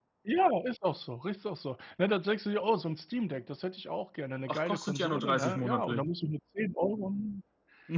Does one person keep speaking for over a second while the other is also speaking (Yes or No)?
Yes